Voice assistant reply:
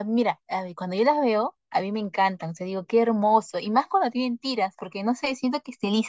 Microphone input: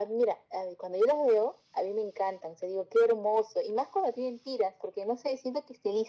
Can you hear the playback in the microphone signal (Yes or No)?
Yes